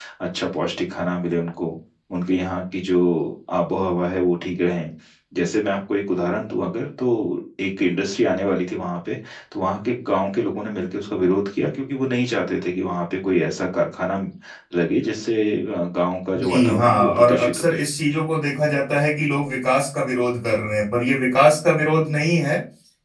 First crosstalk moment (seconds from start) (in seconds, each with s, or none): 16.4 s